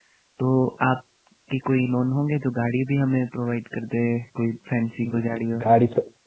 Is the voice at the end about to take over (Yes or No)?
Yes